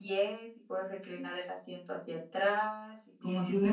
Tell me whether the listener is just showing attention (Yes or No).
Yes